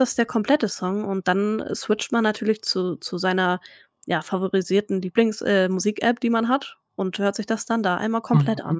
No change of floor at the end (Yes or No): No